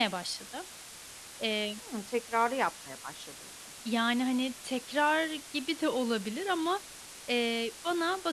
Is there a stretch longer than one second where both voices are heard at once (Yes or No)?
No